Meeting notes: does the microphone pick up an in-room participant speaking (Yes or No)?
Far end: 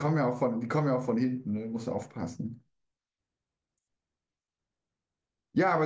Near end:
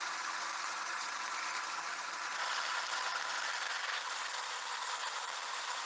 No